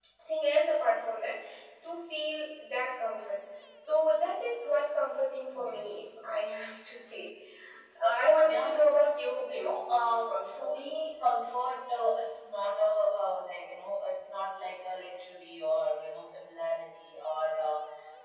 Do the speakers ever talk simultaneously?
Yes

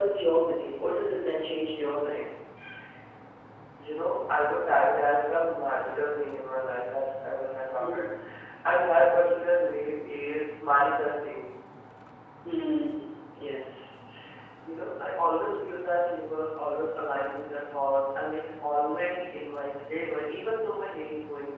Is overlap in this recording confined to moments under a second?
Yes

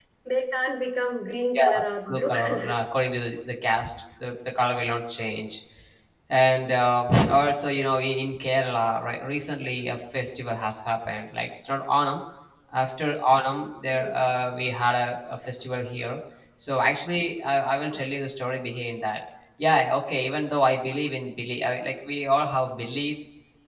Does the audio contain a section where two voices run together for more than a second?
Yes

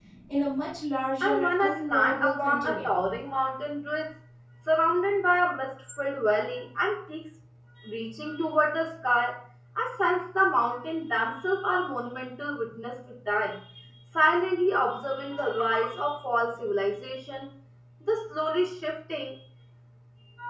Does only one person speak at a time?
No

